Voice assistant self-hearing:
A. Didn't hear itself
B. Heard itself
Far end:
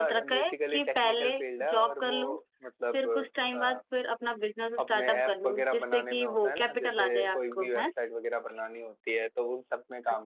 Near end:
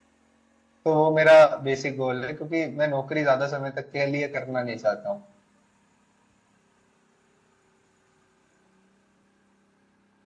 A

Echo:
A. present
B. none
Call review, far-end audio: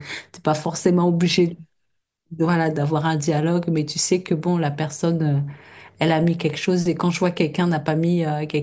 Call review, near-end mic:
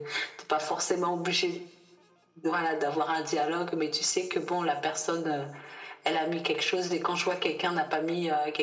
A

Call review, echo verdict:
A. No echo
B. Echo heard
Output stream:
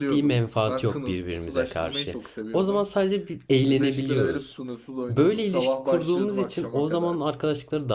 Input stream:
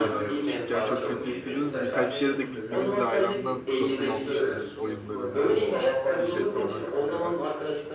B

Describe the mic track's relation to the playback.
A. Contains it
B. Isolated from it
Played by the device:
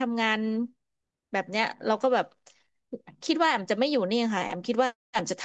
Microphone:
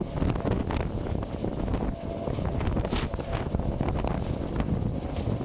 B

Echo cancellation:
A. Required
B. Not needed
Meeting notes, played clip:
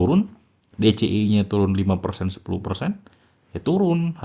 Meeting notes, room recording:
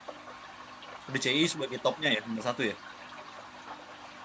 B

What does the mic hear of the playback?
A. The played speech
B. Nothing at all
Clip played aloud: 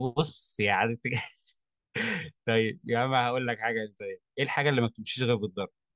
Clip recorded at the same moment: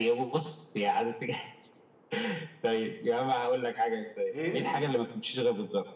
A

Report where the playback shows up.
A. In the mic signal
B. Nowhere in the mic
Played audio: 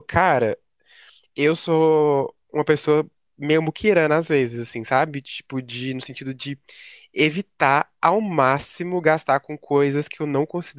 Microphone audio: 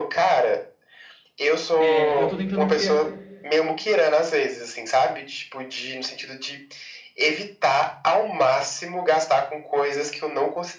A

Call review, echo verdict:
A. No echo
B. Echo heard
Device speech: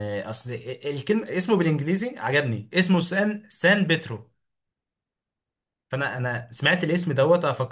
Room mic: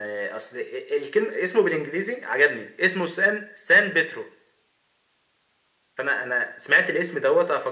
B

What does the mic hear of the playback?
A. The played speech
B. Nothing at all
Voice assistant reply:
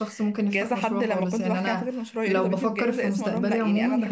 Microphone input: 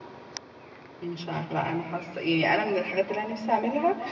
B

